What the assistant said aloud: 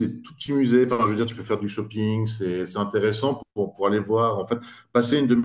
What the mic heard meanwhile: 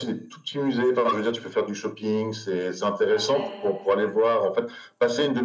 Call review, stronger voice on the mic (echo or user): echo